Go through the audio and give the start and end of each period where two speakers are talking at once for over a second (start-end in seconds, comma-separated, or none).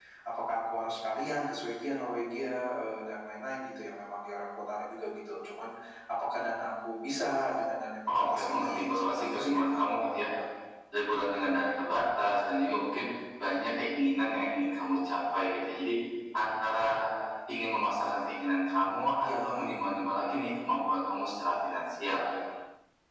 8.1-10.3